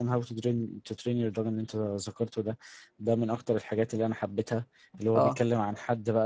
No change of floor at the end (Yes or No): Yes